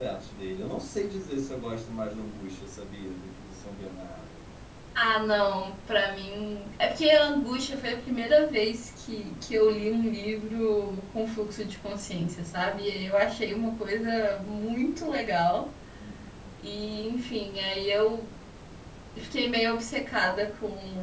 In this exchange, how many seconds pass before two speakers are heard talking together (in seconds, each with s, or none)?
none